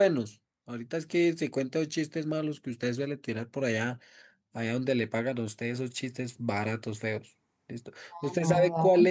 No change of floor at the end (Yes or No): Yes